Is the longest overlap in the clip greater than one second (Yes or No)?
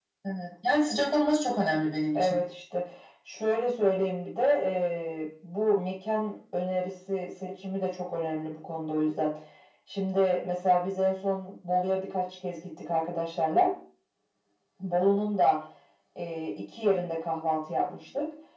No